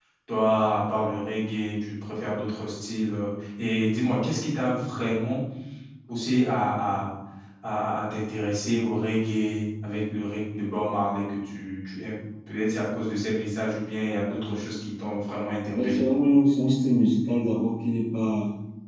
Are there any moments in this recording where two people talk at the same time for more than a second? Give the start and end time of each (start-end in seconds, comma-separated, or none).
none